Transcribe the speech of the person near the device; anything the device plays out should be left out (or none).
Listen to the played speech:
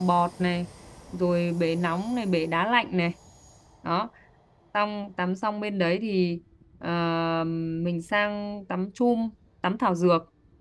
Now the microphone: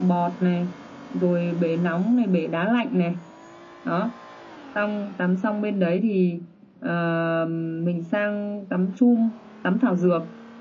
none